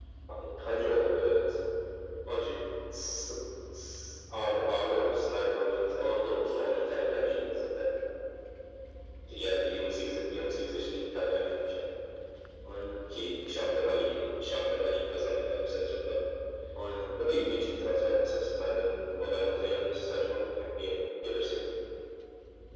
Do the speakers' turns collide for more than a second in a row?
Yes, from 6.0 s

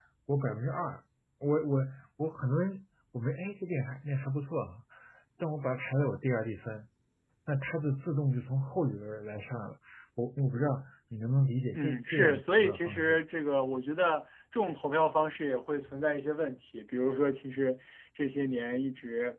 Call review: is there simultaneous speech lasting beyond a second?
Yes, from 11.7 s

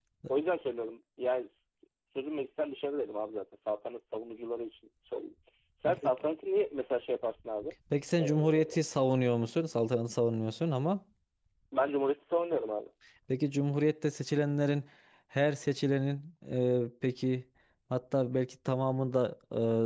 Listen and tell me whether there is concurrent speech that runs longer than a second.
No

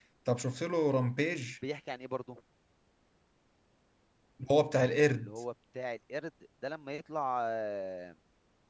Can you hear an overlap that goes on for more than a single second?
No

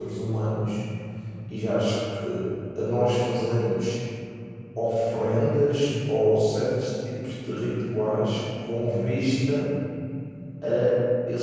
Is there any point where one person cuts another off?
No

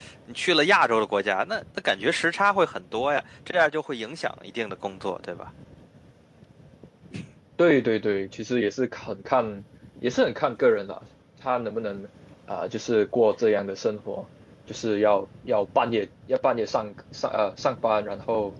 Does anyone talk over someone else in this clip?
No

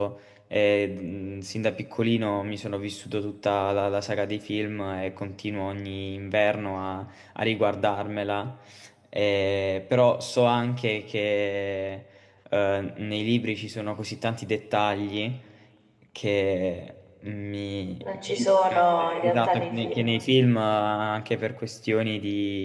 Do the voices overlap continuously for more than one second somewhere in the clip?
Yes, from 18.0 s

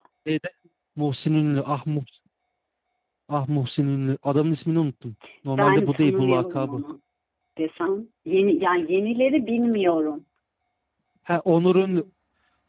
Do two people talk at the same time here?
Yes, from 5.6 s

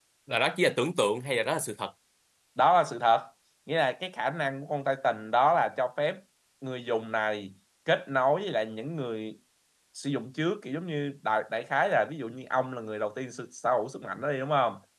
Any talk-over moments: No

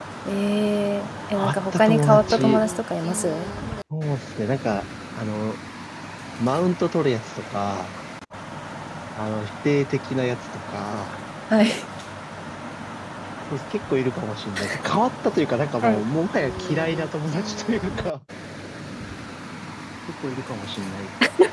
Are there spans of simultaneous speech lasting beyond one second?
Yes, from 1.4 s

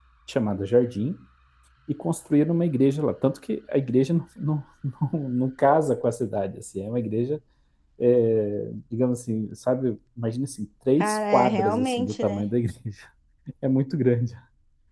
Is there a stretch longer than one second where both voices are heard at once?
Yes, from 11.0 s

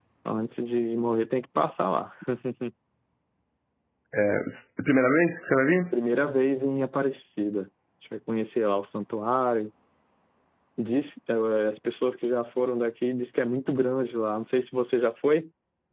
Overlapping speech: No

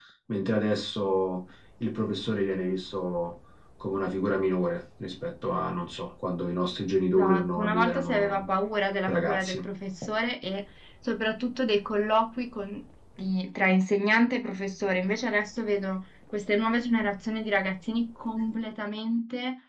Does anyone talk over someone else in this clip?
Yes, from 7.2 s

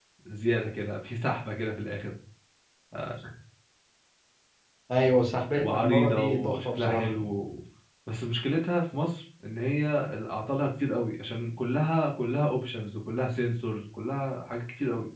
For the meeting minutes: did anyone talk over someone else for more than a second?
Yes, from 5.6 s

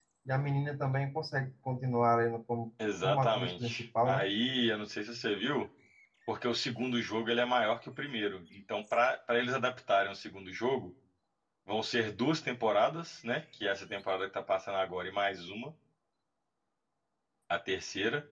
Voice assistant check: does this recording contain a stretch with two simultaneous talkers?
Yes, from 2.8 s

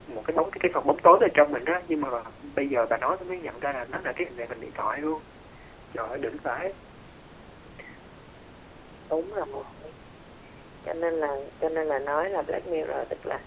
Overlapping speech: No

